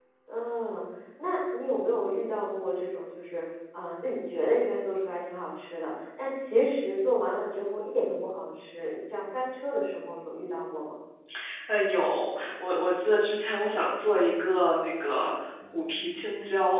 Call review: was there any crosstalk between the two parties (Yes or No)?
No